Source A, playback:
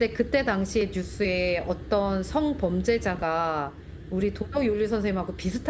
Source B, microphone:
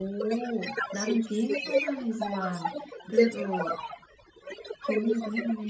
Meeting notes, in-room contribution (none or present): present